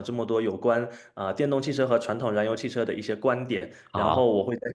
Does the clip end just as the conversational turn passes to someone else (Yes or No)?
No